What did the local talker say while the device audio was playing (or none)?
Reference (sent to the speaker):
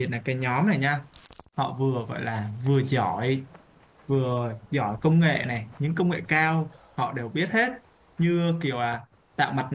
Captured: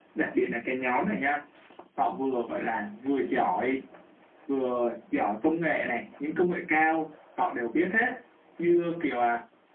none